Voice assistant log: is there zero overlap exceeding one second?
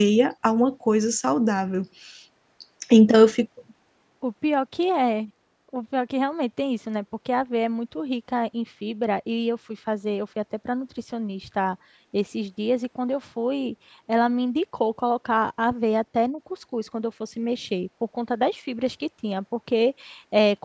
Yes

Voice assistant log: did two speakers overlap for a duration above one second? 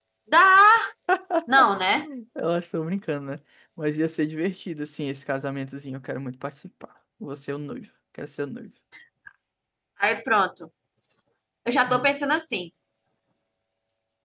No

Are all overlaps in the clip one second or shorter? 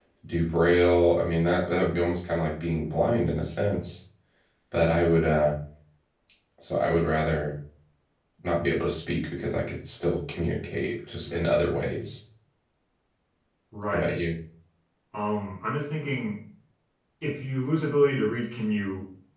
Yes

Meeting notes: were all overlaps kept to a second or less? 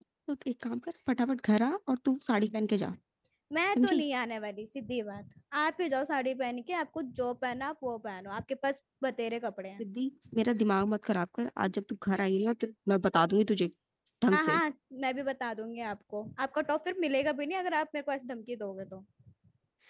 Yes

